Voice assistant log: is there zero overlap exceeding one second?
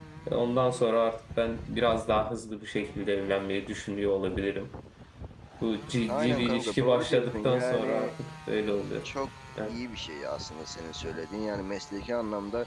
No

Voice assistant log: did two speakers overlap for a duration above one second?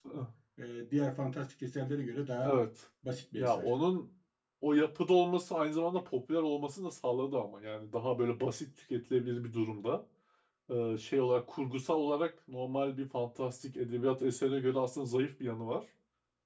No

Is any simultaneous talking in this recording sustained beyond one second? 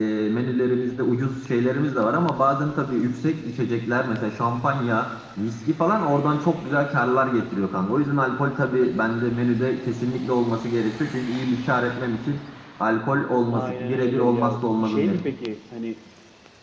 Yes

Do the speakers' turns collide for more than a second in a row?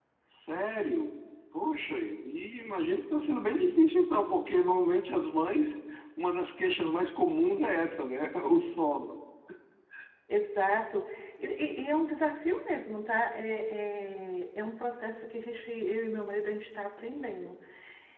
No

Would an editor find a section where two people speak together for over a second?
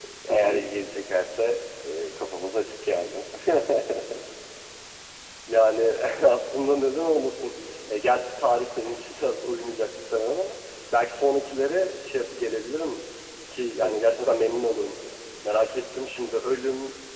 No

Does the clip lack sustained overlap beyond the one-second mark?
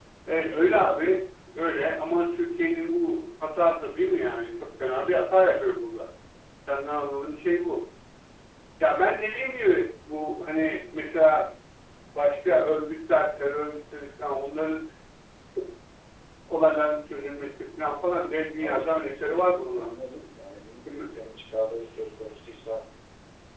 No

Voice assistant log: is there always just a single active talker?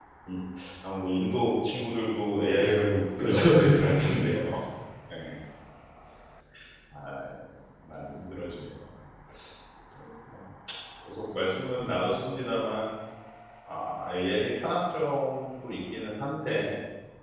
No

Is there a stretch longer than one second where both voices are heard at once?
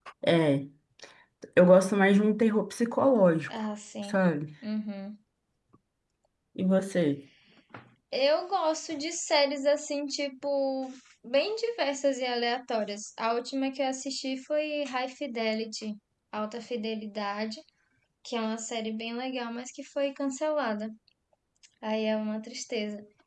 No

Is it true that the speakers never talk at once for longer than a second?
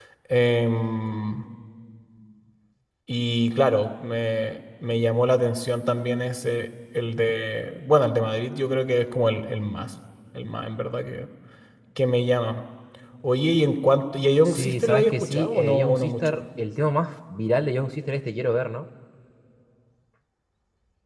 No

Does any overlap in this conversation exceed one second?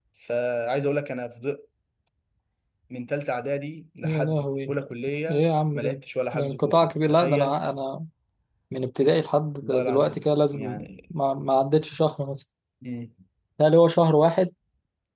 Yes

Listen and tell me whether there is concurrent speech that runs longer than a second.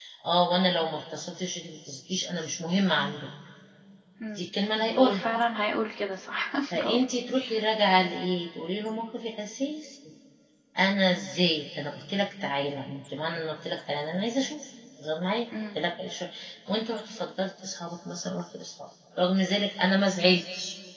No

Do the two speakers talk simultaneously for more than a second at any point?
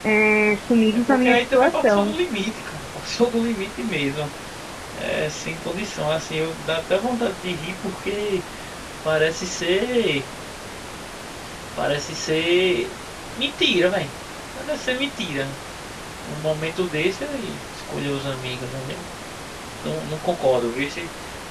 Yes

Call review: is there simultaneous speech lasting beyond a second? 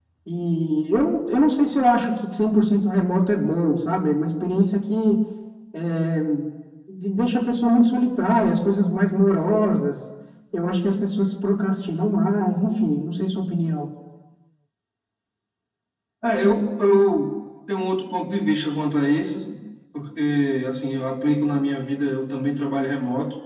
No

